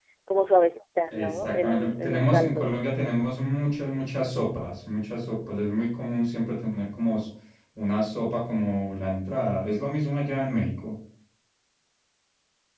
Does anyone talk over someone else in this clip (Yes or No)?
Yes